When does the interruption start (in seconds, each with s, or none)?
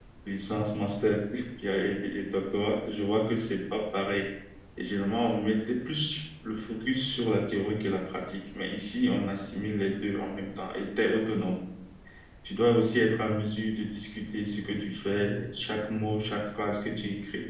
none